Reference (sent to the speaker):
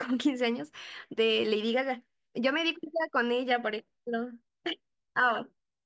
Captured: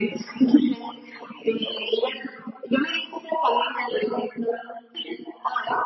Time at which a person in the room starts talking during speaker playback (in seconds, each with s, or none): none